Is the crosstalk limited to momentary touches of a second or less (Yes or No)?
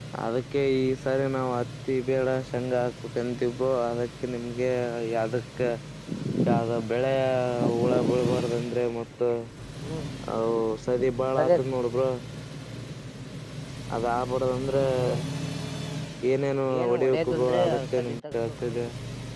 No